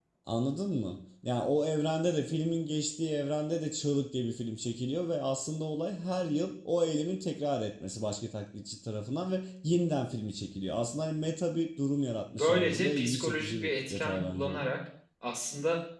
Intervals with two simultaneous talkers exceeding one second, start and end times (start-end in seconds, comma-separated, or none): 12.3-14.6